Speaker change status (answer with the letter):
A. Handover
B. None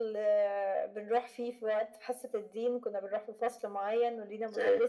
B